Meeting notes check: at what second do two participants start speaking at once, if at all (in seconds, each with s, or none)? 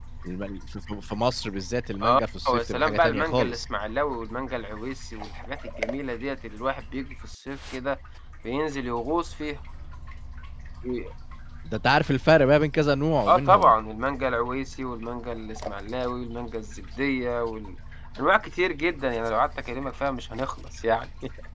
2.0 s